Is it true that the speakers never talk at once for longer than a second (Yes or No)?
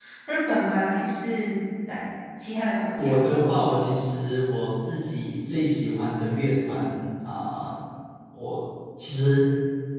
Yes